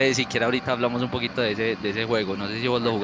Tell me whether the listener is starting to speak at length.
Yes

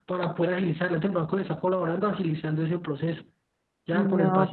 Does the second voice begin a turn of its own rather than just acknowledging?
Yes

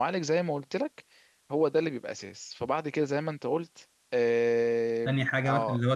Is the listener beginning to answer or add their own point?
Yes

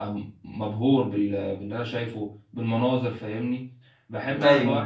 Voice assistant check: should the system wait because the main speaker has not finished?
Yes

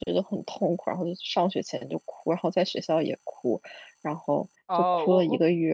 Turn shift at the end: Yes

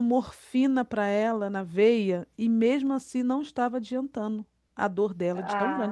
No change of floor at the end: No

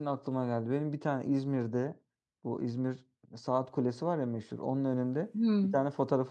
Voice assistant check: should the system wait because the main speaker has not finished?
Yes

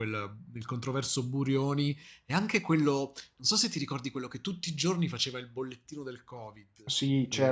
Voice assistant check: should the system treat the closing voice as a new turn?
Yes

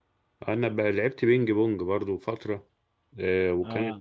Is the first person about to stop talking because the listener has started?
No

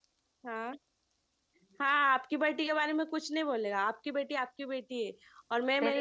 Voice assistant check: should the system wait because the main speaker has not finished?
No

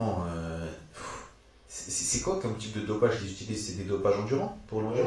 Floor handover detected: Yes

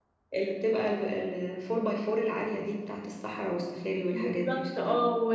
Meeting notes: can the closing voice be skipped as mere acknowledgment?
No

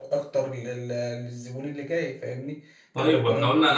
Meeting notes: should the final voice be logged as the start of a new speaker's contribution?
Yes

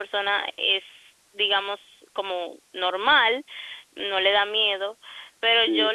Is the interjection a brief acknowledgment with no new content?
Yes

